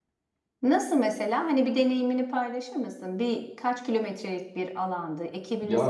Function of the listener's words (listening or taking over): taking over